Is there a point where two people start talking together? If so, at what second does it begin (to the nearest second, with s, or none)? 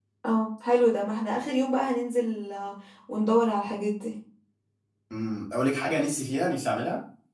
none